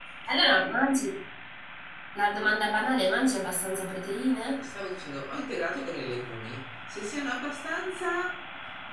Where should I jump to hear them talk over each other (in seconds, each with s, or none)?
none